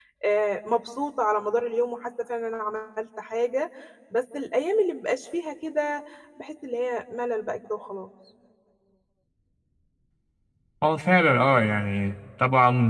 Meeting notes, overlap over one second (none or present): none